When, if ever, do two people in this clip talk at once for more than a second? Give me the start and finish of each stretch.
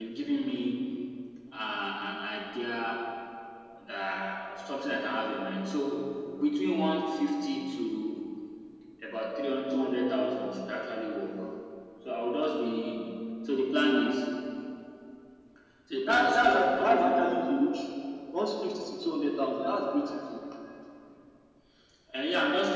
16.1-17.3

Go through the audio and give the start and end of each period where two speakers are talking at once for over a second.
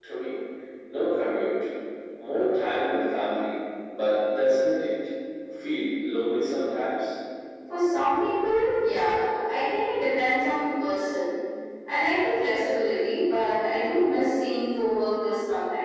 none

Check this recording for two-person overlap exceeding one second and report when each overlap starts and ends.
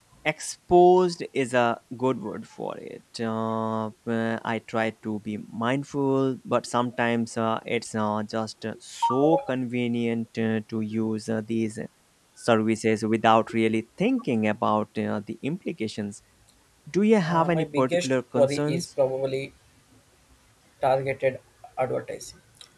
17.2-18.9

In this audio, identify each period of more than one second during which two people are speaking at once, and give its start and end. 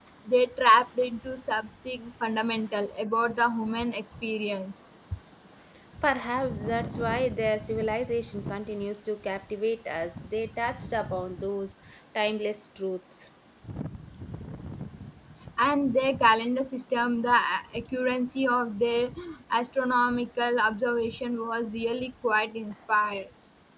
none

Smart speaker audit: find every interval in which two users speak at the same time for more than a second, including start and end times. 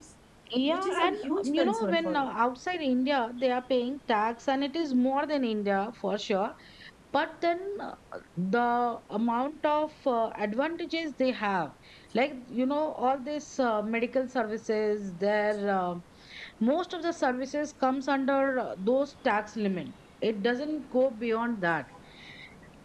0.7-2.3

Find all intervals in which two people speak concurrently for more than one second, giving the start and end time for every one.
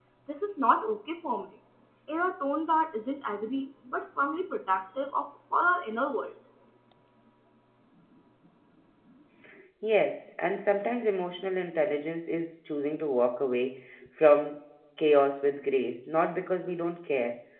none

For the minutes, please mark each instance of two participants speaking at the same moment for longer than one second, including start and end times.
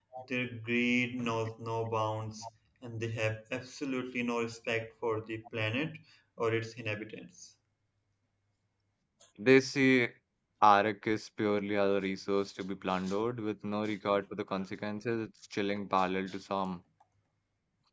none

